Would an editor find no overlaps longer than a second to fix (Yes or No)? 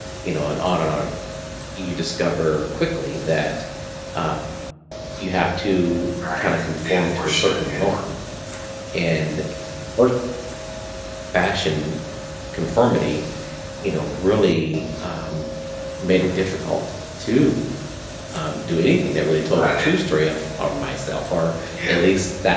No